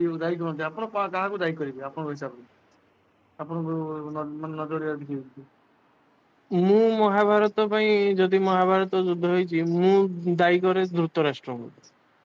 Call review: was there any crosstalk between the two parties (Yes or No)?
No